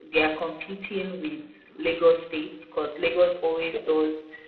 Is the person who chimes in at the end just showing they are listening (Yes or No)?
Yes